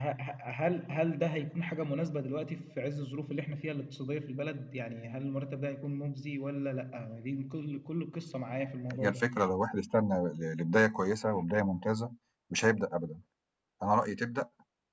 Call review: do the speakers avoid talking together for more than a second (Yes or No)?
Yes